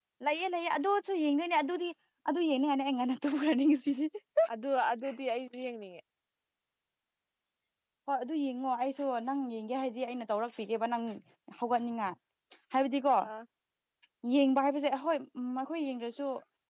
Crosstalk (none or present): none